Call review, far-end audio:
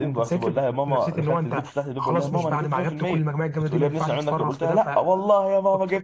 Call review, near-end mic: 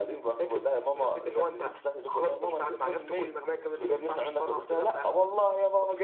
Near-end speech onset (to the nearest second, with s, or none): none